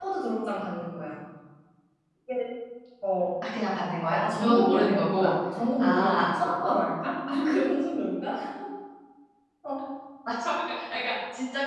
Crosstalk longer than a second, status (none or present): present